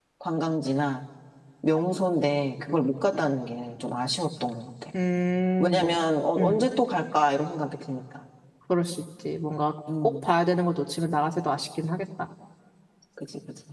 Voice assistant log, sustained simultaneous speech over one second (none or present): none